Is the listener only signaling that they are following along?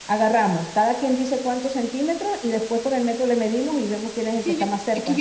No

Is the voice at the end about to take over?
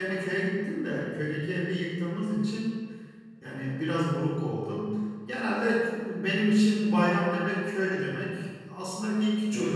No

